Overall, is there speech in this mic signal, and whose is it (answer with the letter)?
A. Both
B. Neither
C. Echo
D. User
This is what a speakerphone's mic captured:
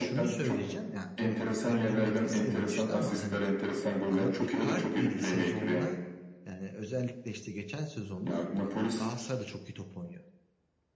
A